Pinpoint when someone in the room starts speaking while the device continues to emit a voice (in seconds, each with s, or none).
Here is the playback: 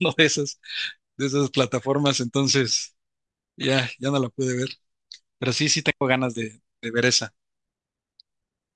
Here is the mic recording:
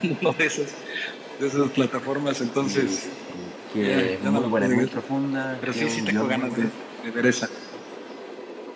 2.5 s